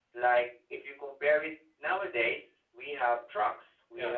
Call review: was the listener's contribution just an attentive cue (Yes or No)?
Yes